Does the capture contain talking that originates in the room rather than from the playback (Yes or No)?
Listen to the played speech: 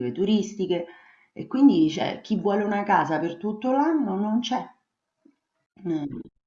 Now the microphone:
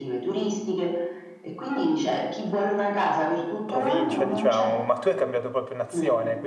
Yes